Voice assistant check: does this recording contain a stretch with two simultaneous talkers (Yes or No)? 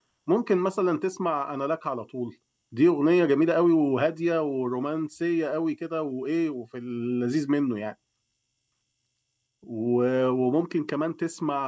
No